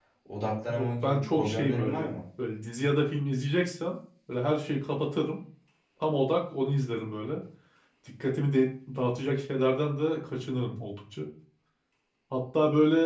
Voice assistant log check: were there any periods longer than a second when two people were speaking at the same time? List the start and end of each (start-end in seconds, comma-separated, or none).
0.7-2.1